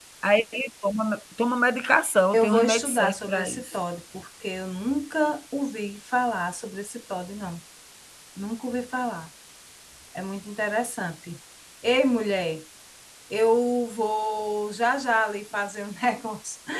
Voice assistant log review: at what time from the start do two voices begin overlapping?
2.3 s

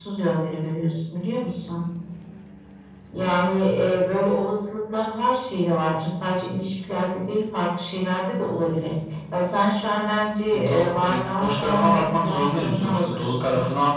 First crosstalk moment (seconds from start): 10.5 s

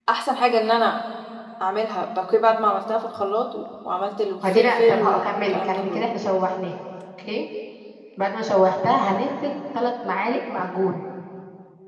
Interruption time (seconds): 4.4 s

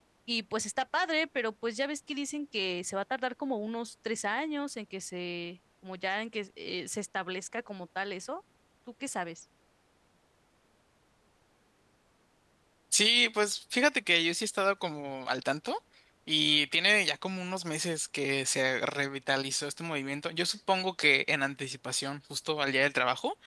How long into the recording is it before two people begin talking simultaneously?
none

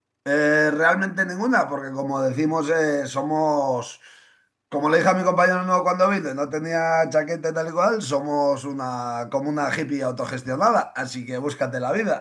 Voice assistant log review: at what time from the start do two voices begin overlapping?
none

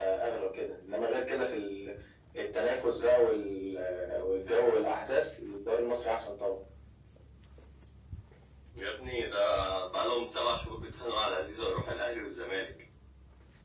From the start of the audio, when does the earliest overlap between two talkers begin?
none

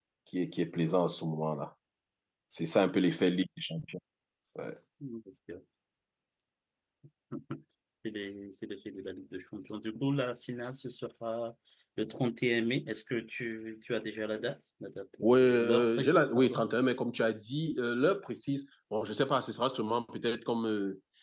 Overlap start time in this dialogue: 15.2 s

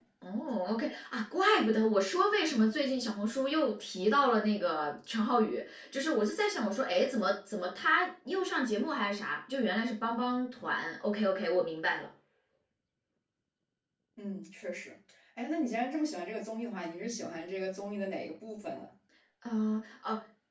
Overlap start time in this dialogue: none

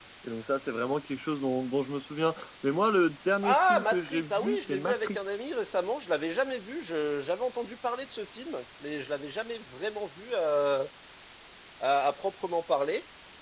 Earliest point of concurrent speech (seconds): 3.4 s

